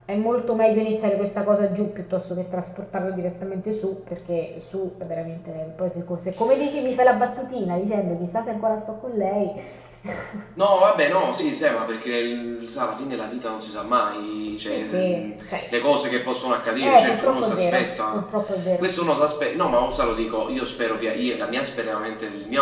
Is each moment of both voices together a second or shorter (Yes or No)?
No